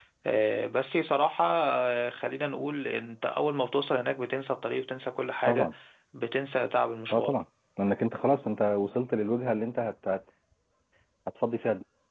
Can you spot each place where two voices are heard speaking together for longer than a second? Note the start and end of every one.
none

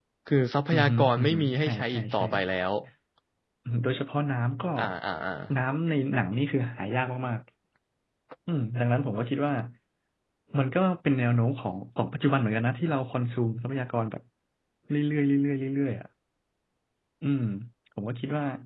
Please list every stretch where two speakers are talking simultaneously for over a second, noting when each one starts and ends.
0.7-2.2

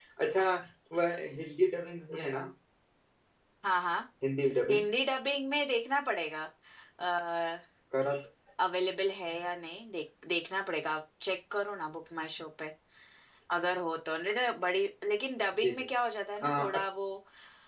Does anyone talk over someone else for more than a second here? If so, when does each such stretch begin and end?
none

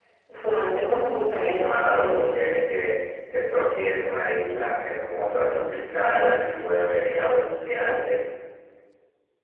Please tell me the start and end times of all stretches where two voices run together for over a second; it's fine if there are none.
1.2-2.4

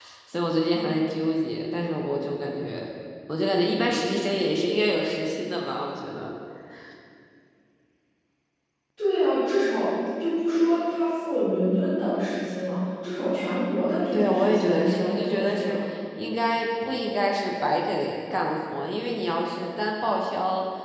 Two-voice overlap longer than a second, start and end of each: 14.1-15.8

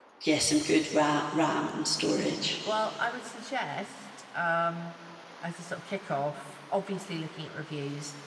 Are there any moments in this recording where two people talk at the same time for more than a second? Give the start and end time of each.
none

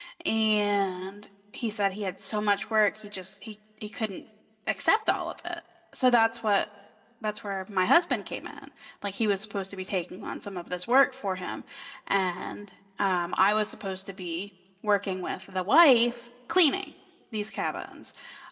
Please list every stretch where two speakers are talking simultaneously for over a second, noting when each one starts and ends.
none

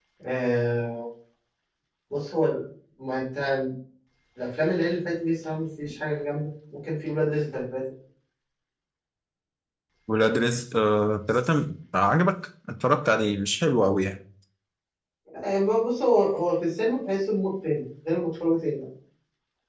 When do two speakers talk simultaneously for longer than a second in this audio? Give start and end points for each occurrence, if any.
none

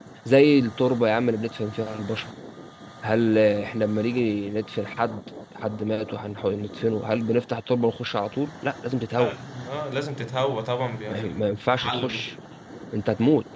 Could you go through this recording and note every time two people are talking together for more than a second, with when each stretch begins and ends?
11.1-12.3

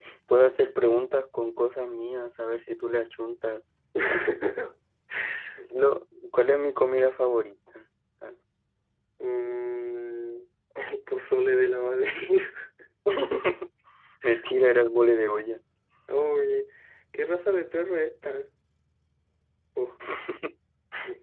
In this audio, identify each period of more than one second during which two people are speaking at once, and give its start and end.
none

